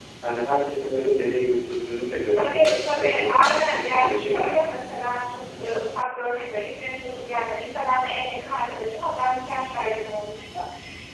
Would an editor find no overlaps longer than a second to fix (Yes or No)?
No